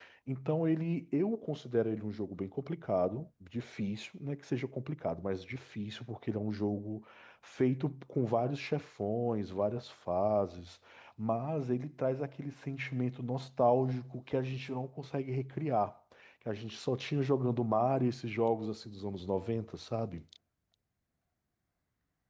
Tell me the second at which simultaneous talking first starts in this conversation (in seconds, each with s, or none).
none